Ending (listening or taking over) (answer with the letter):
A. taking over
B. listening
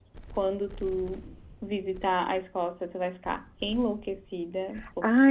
A